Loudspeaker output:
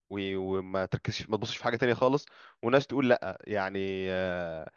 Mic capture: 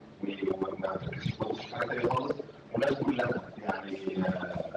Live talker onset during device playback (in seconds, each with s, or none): none